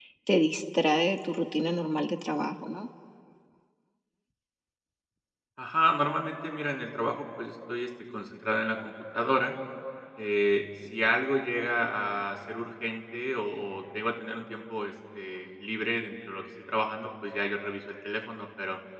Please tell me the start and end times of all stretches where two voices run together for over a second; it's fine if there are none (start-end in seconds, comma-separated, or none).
none